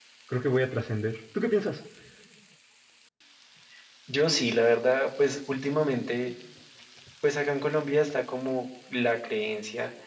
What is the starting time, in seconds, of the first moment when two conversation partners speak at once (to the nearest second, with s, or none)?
none